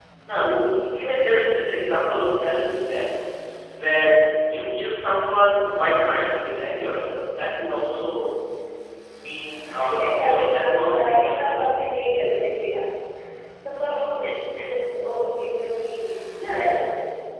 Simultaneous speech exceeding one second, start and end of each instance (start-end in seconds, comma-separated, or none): 9.8-11.8